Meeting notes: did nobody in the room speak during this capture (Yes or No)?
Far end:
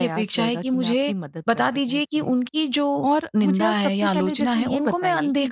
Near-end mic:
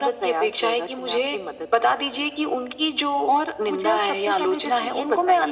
Yes